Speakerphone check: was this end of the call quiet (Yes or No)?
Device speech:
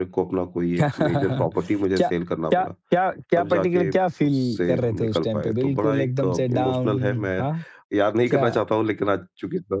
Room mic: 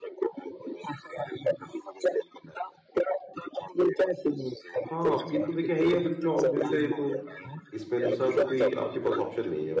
No